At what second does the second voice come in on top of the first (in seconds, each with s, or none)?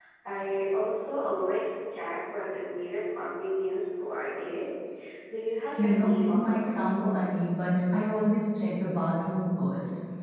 5.7 s